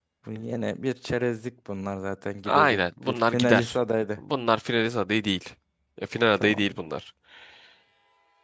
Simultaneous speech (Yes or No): Yes